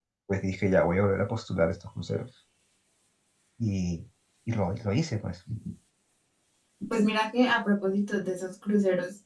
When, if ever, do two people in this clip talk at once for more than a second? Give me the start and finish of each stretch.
none

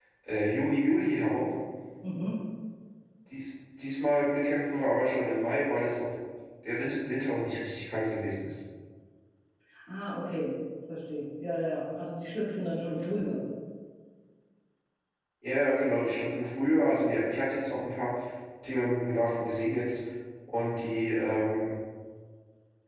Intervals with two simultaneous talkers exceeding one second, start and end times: none

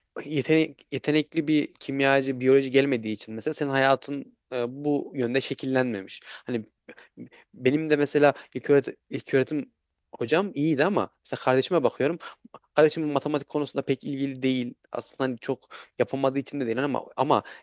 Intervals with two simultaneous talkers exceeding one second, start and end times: none

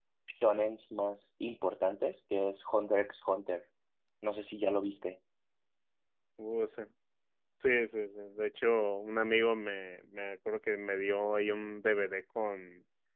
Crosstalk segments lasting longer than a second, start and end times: none

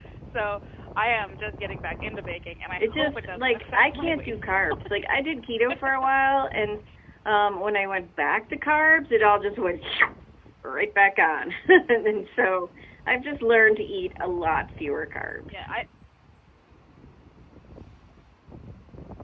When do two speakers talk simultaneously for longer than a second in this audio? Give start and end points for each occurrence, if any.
2.8-4.5

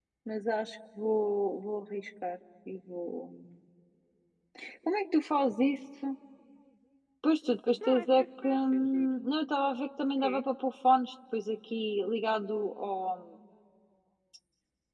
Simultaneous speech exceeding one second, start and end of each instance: 7.9-9.1

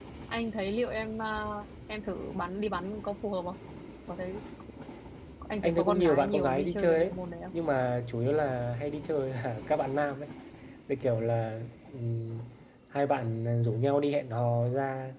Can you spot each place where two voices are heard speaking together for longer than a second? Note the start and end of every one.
5.6-7.1

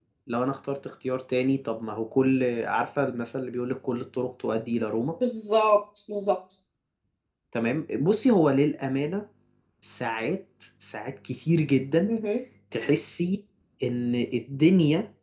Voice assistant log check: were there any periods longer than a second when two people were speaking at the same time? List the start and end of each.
none

